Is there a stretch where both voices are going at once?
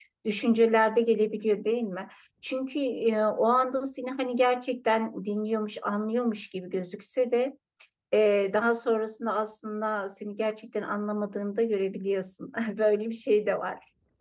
No

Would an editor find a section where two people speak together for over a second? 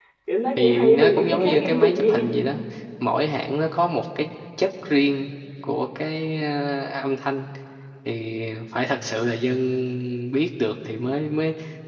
Yes, from 0.6 s

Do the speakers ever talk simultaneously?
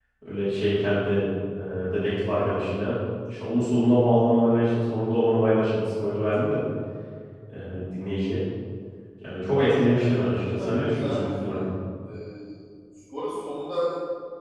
Yes, from 10.0 s

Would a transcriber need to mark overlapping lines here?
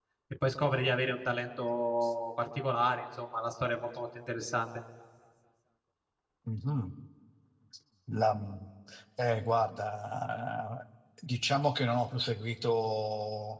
No

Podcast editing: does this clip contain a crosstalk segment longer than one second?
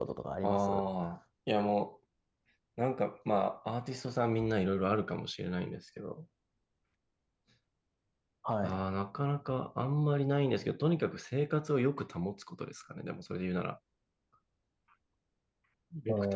No

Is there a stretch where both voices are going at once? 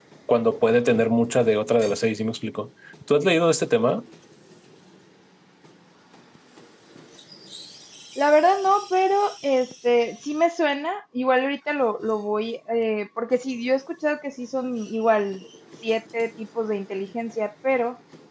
No

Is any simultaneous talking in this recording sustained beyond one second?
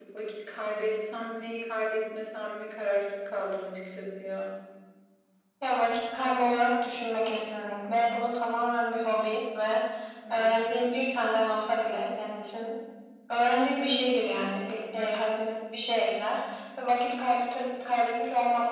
No

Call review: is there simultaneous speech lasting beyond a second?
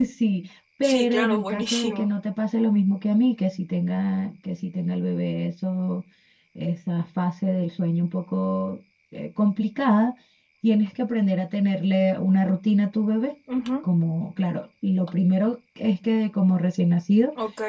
Yes, from 0.8 s

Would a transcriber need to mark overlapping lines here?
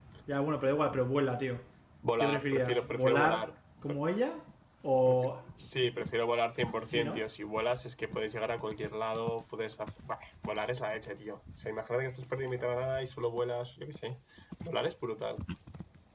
Yes, from 2.2 s

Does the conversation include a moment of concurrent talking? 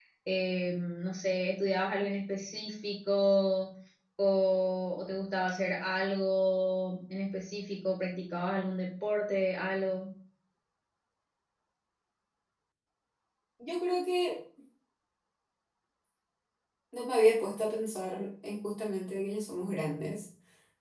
No

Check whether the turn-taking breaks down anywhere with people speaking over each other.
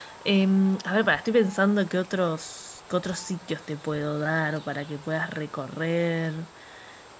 No

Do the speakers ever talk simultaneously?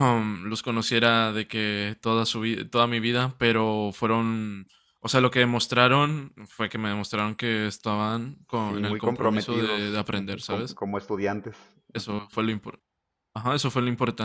Yes, from 8.7 s

